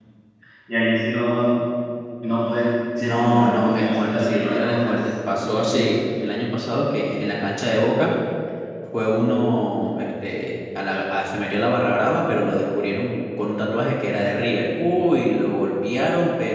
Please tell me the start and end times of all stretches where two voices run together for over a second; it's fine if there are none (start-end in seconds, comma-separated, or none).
3.0-6.0